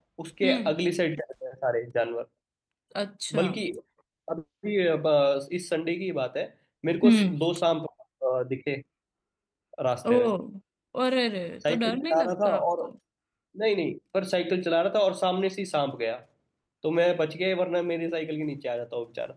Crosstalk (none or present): present